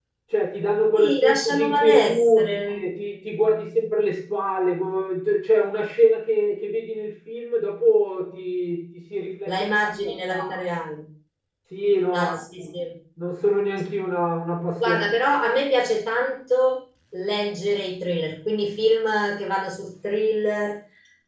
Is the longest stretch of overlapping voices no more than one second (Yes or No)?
No